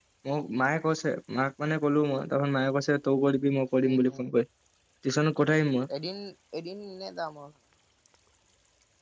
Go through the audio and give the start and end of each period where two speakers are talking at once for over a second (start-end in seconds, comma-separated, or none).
none